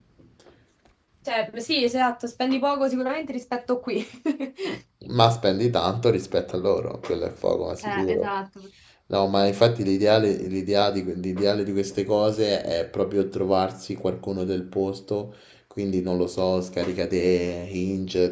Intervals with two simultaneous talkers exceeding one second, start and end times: none

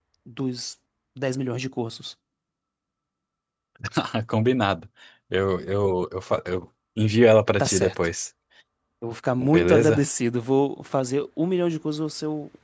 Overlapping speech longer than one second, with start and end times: none

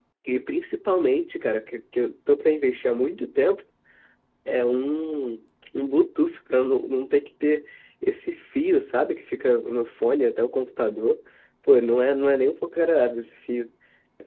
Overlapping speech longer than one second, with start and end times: none

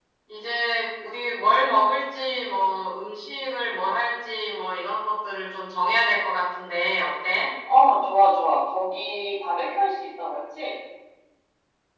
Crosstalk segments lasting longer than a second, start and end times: none

